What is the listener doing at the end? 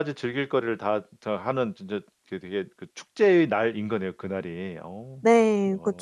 taking over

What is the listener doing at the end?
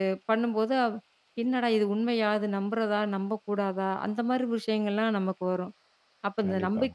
listening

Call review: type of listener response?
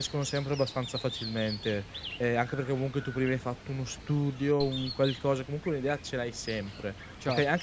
listening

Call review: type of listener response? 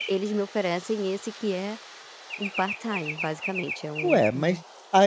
taking over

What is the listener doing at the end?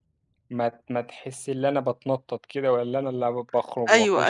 taking over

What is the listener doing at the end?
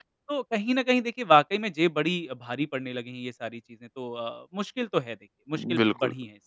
taking over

